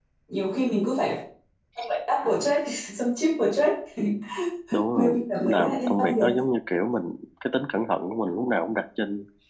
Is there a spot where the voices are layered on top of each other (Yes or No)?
Yes